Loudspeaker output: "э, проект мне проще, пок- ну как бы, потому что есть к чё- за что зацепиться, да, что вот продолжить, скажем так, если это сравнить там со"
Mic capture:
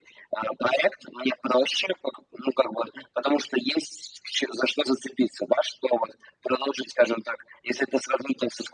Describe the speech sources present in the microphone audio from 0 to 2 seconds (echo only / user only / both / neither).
echo only